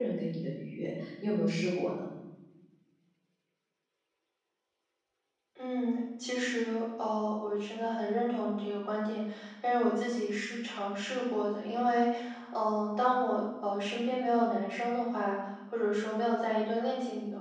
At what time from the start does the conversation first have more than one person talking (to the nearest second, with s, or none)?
none